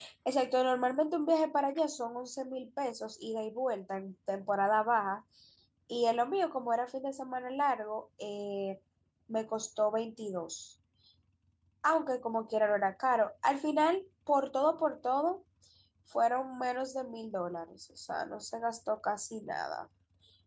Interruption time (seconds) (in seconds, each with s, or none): none